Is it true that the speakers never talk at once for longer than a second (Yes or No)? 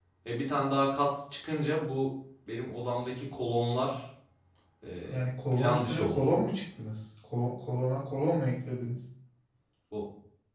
No